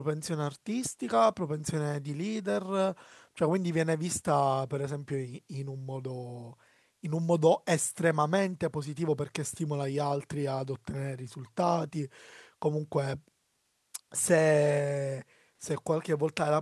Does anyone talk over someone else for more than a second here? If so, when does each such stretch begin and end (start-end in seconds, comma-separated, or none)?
none